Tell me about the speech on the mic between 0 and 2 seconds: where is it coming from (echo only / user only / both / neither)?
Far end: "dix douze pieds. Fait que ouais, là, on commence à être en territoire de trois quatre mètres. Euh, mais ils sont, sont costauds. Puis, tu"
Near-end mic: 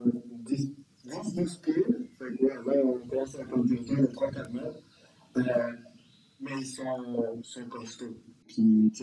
echo only